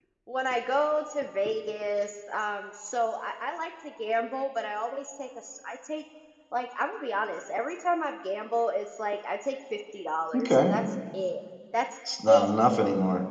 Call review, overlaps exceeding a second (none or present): none